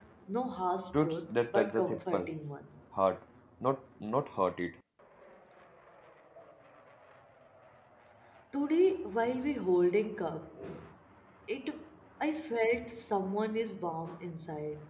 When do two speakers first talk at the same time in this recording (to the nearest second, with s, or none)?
1 s